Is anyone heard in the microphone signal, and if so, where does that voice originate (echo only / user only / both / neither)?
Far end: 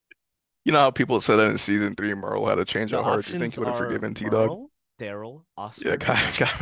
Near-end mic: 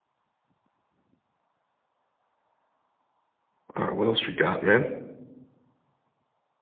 user only